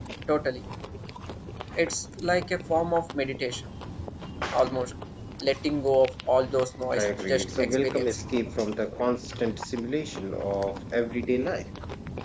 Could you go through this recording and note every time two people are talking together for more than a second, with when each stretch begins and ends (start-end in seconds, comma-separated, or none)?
6.9-8.2